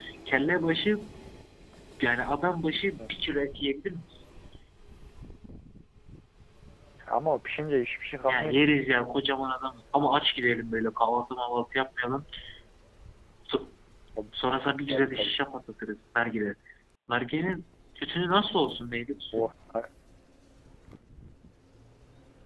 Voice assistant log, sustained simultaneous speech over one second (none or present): none